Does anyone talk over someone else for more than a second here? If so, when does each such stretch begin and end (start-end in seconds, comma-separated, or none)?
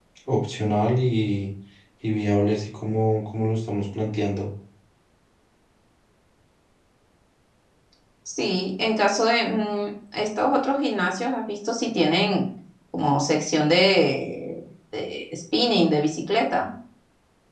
none